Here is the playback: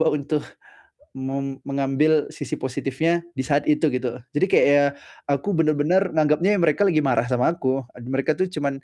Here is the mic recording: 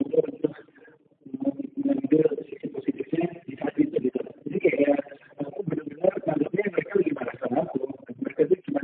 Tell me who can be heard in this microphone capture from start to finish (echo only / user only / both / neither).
echo only